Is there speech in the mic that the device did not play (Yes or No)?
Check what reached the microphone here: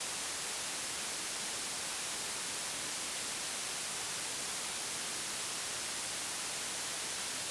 No